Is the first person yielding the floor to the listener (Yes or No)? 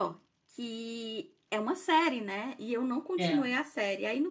No